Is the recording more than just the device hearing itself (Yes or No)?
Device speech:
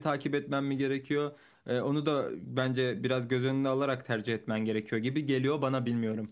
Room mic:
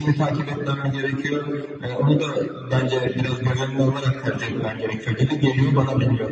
No